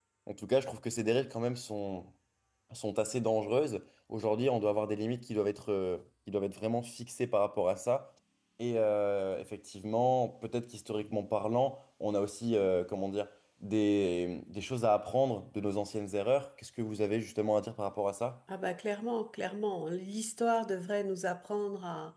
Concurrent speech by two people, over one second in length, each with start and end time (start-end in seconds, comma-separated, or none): none